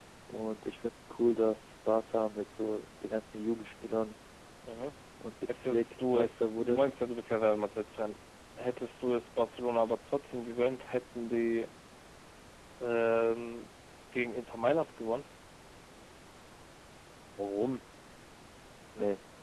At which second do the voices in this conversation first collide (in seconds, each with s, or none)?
5.5 s